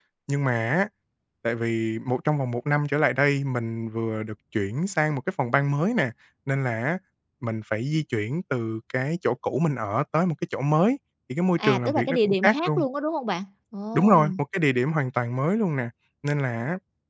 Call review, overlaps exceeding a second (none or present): present